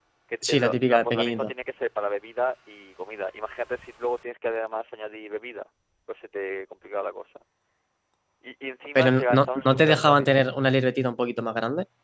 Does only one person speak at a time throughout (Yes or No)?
No